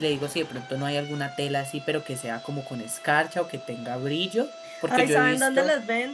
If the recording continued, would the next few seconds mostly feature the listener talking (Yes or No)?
Yes